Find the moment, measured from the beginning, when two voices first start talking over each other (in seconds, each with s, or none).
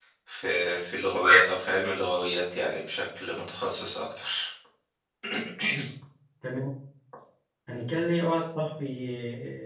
none